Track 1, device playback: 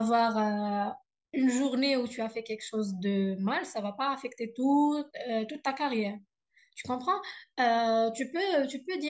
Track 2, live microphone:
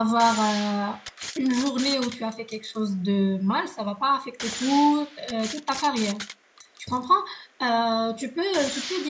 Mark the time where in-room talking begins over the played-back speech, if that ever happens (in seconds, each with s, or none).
none